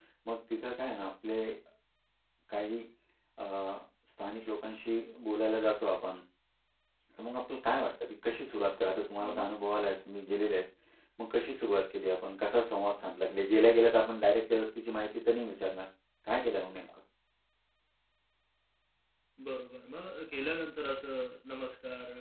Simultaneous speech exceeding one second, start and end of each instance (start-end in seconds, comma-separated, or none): none